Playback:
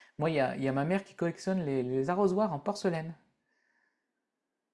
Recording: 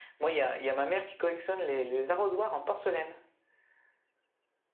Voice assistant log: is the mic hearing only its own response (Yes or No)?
Yes